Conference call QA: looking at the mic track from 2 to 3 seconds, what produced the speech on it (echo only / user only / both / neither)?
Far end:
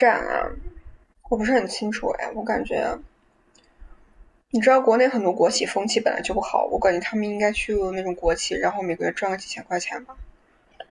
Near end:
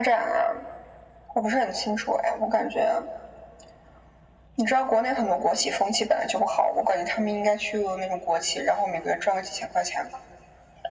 echo only